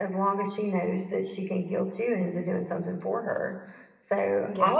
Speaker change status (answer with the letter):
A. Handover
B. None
B